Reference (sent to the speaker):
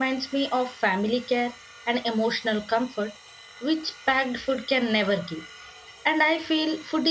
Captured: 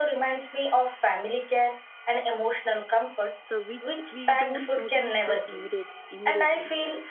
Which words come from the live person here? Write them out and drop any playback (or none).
so which we don't notice the immediate immediately.